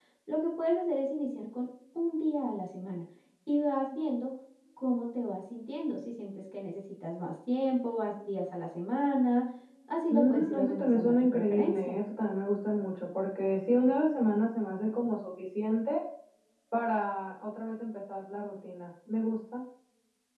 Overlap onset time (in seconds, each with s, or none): 10.1 s